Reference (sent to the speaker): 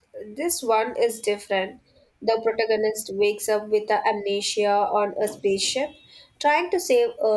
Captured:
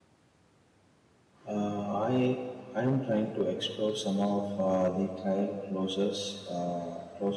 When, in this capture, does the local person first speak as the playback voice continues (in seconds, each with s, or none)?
1.5 s